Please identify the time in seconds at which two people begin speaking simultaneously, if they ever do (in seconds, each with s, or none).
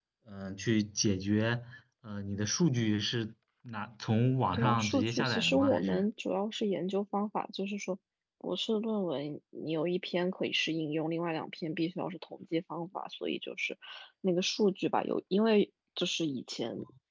4.5 s